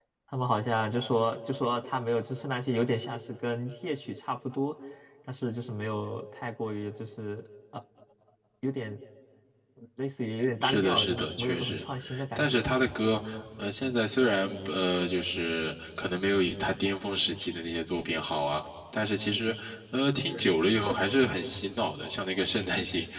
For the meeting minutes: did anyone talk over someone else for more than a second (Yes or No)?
Yes